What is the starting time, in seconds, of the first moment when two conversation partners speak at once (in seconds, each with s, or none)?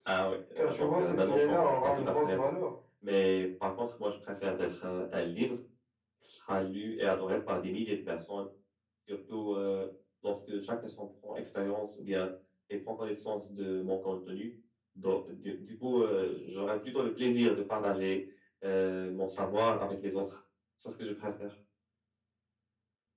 0.6 s